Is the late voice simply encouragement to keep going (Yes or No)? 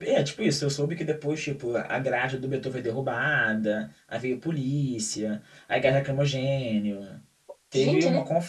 Yes